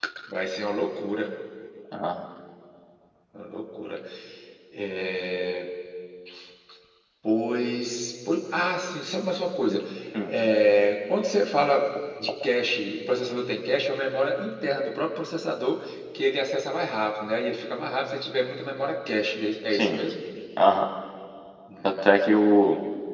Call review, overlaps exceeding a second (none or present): none